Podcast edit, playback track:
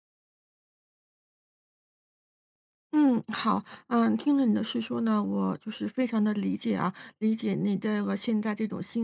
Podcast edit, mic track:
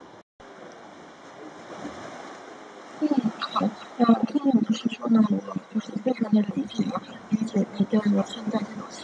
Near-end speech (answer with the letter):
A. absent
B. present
A